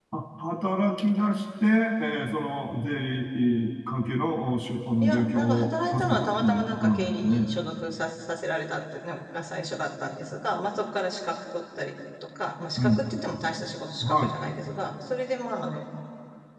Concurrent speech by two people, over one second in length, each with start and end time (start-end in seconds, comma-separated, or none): 5.0-7.5